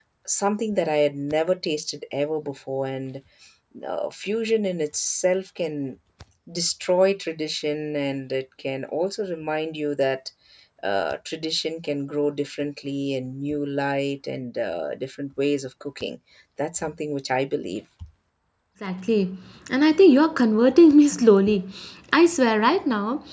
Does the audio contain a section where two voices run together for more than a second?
No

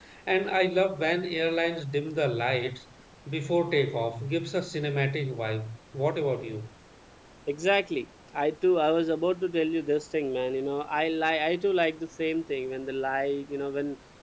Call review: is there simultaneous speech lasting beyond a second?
No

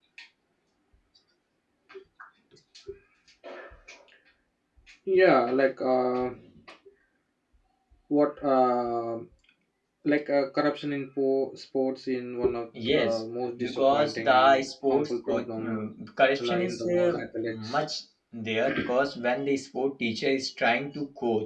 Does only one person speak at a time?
No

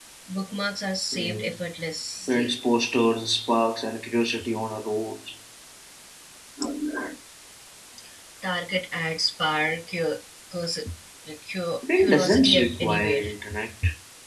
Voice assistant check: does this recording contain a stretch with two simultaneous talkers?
Yes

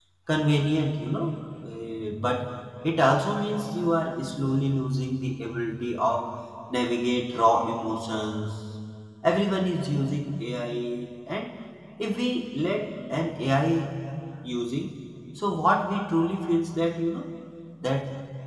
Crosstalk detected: No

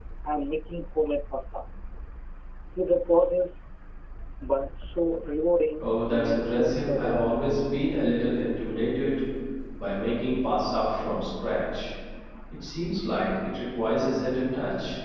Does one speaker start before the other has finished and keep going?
Yes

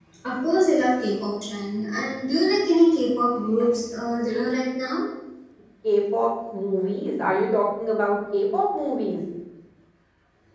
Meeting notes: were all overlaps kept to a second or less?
Yes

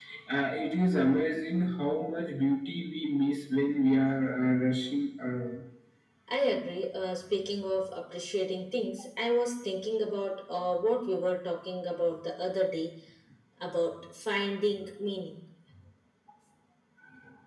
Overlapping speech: No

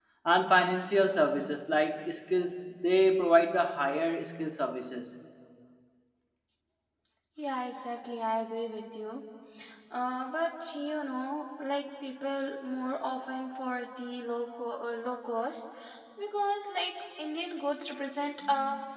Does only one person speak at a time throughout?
Yes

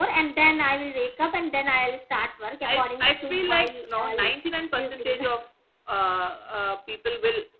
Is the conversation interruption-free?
No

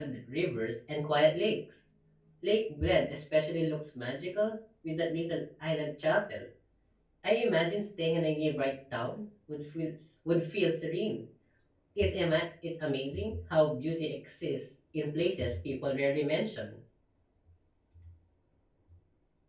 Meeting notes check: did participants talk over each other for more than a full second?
No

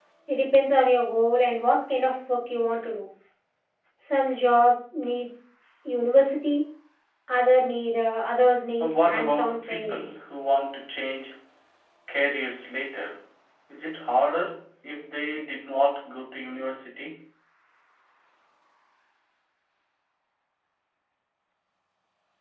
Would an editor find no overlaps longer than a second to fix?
No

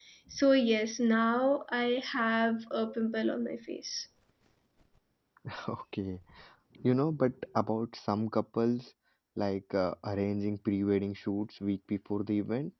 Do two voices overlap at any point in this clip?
No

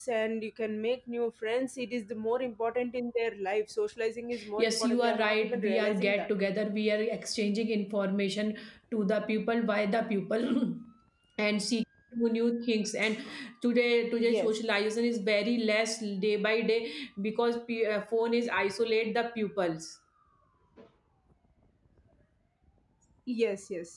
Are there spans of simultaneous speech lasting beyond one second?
Yes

